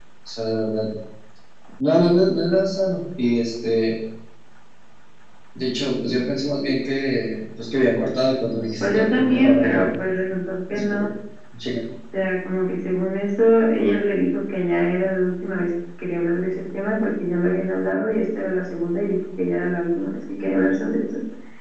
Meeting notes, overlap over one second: present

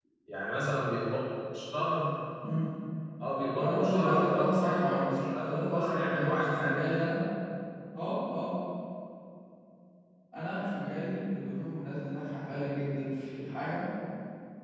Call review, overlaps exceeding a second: present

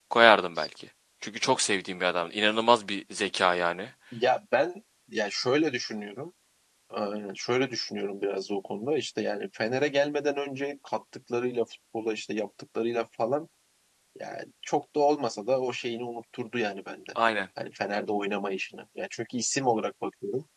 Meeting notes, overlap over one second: none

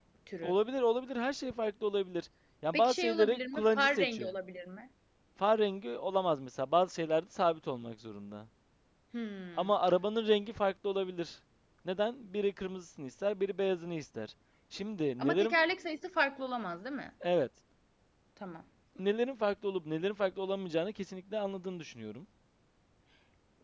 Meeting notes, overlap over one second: present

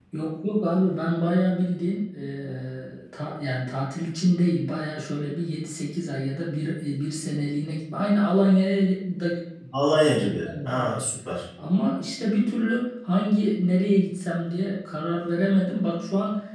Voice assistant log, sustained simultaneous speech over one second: none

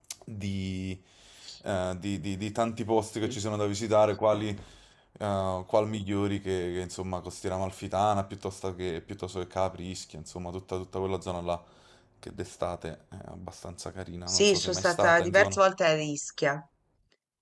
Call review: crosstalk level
present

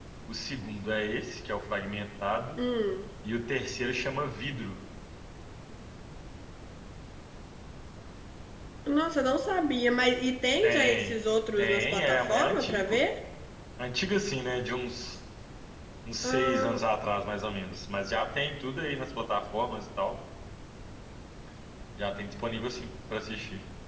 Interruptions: present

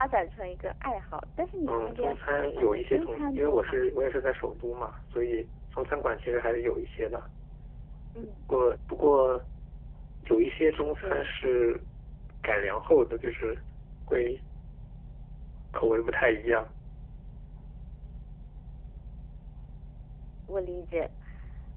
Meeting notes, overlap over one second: present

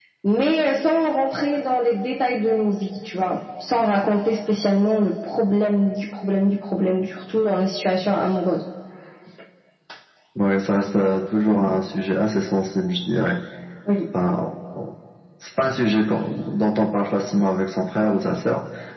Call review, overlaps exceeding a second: none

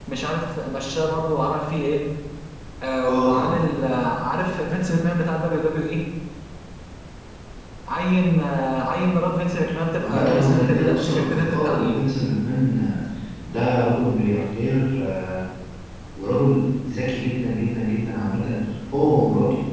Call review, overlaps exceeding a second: present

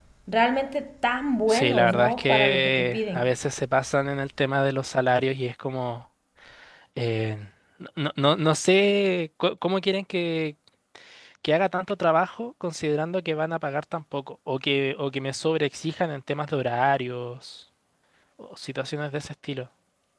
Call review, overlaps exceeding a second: present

